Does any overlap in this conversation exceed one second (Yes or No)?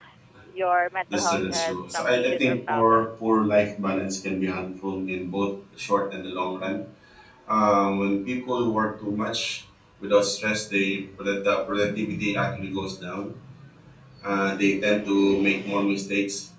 Yes